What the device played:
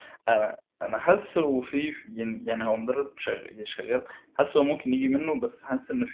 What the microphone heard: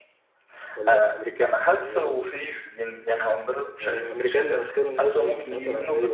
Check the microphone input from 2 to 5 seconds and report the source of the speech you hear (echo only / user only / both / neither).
both